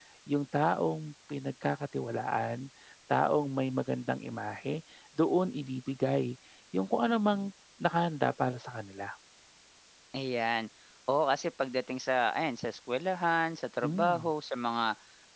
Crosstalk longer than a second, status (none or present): none